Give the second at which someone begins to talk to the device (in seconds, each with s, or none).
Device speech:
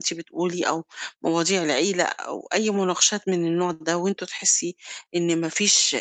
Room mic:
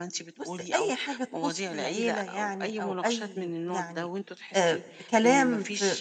0.4 s